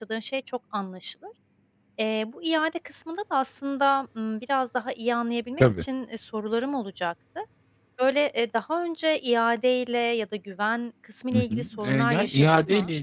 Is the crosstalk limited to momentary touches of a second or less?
No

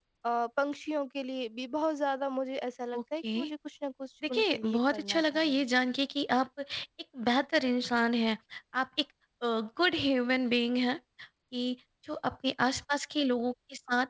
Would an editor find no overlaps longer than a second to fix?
No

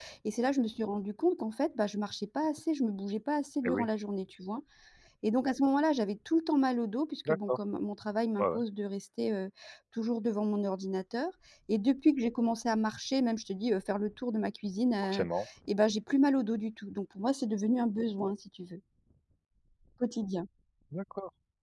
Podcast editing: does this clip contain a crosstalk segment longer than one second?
No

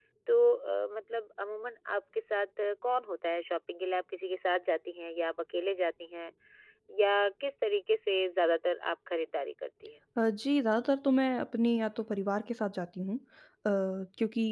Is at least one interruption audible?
No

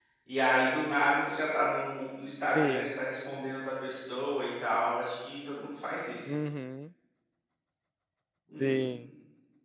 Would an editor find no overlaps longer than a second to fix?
Yes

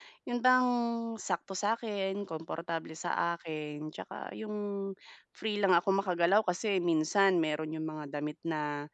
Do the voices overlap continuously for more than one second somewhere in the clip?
No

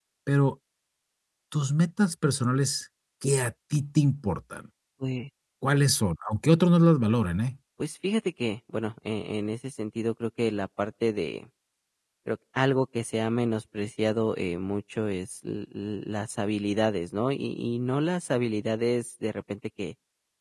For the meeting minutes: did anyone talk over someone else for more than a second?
No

